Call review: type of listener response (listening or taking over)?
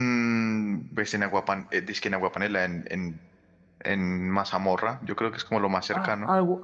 taking over